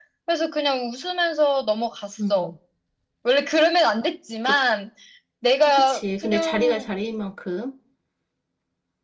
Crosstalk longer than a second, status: present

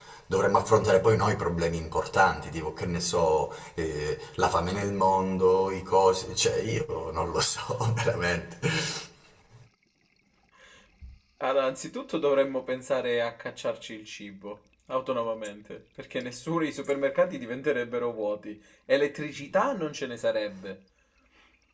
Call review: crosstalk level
none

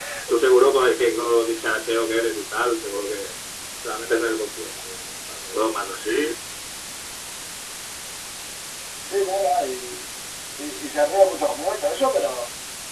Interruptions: none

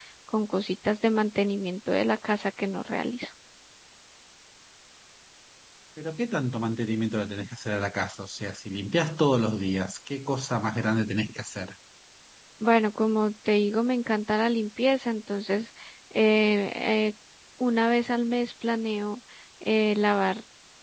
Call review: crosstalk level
none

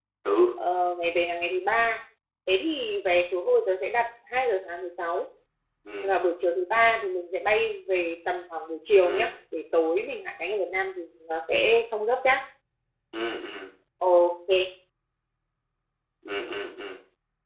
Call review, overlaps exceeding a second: none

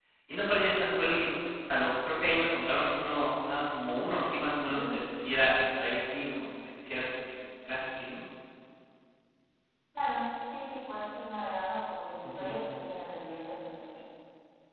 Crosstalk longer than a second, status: none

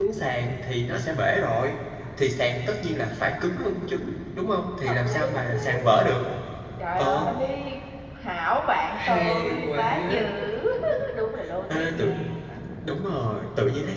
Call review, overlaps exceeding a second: present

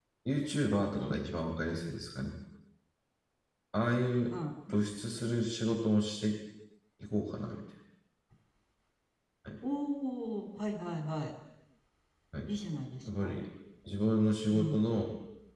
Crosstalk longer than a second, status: none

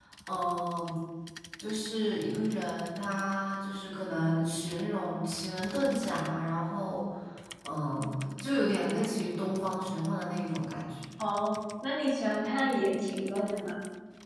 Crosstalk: none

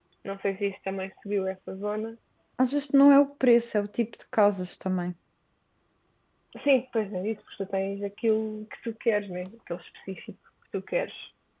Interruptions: none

